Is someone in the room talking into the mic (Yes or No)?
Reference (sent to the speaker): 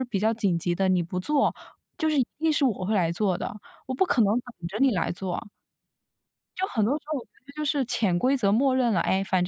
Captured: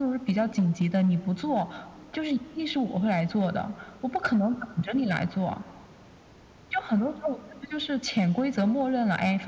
No